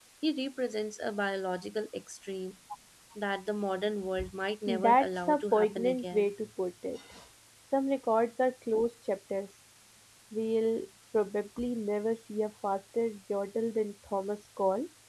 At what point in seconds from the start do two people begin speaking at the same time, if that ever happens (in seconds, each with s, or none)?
4.7 s